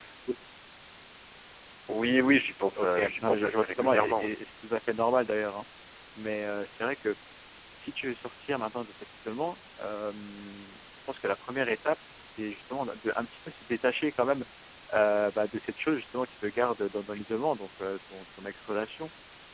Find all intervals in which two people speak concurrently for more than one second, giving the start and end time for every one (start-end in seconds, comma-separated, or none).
2.8-4.3